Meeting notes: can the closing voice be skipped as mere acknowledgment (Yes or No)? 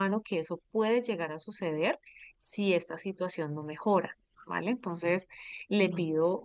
Yes